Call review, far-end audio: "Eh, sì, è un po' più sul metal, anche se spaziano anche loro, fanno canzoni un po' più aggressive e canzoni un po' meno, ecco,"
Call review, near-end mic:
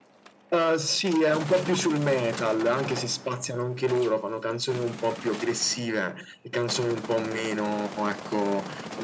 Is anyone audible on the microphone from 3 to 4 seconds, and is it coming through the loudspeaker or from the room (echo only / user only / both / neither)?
echo only